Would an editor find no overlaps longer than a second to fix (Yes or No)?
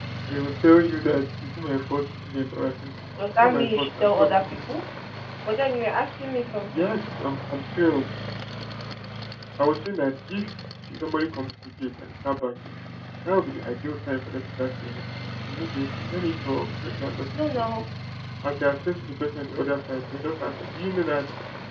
No